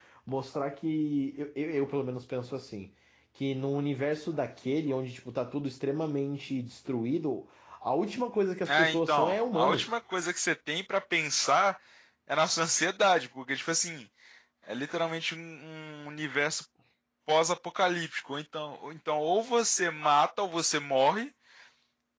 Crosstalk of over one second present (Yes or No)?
Yes